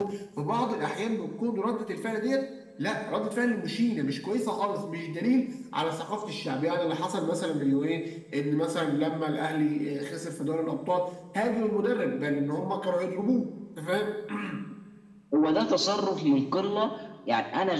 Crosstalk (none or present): none